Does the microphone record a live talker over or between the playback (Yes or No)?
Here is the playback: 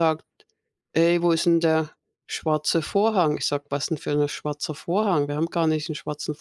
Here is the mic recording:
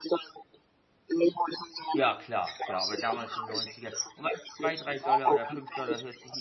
Yes